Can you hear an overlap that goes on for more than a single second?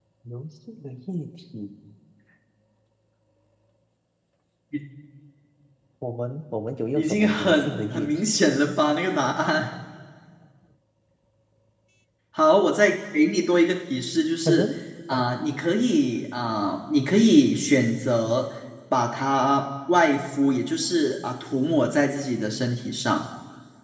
Yes, from 7.0 s

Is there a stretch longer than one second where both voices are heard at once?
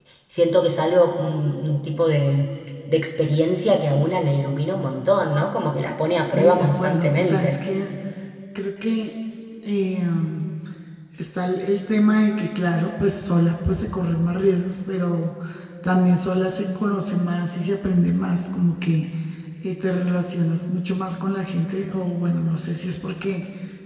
Yes, from 6.3 s

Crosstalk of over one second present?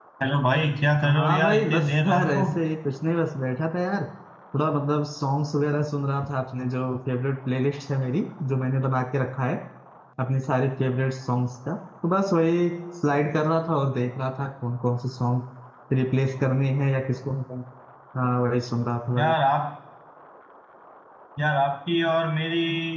Yes, from 1.0 s

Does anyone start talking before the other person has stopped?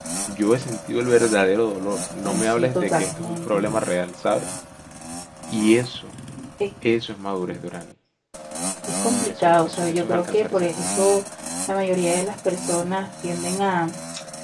Yes, from 2.2 s

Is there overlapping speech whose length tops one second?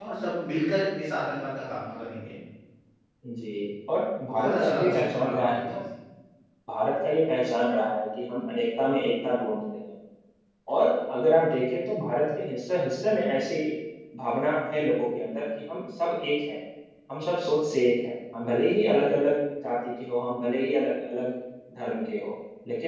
Yes, from 4.2 s

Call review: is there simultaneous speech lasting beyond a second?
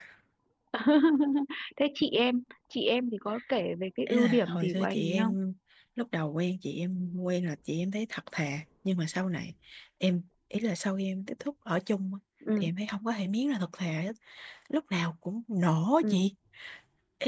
Yes, from 4.1 s

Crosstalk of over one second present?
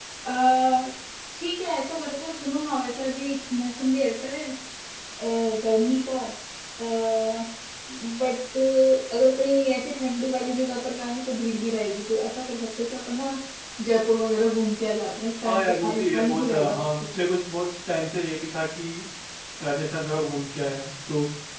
Yes, from 15.4 s

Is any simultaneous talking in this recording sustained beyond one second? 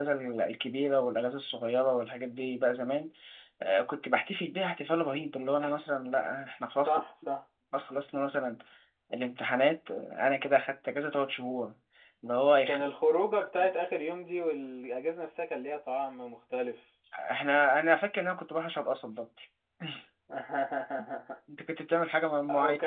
No

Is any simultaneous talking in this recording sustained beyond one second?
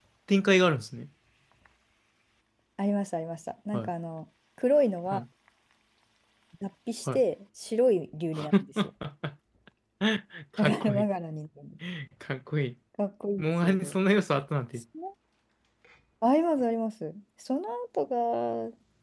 No

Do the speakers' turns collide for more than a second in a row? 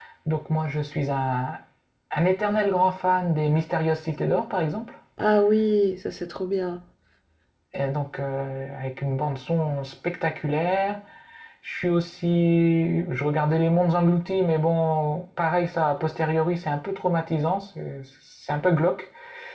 No

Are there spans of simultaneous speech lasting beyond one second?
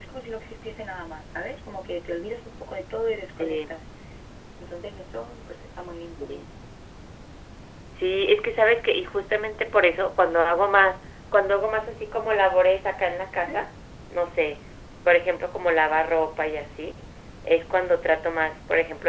No

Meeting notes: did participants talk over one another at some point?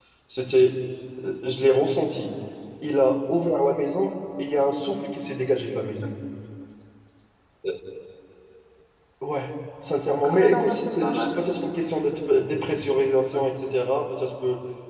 Yes, from 10.1 s

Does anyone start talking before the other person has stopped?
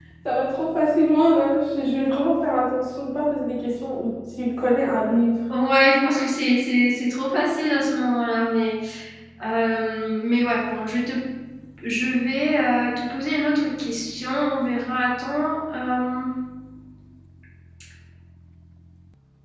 No

